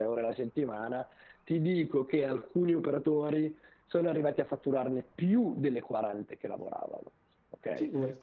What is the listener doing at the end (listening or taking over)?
taking over